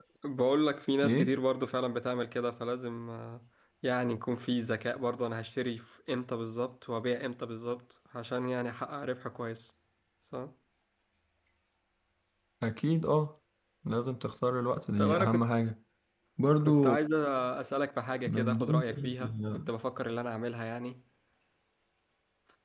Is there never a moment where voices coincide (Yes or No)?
No